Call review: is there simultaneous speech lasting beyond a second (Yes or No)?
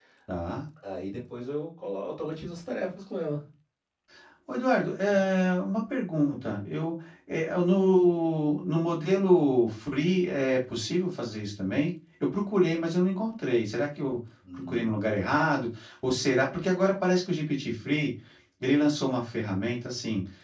No